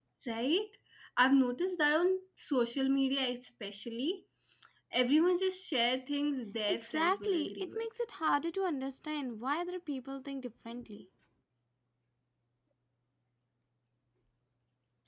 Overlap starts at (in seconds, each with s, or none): 6.6 s